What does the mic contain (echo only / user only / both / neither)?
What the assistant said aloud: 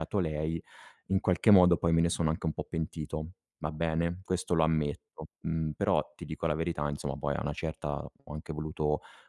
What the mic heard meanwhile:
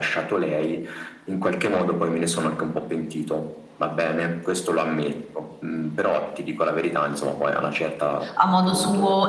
both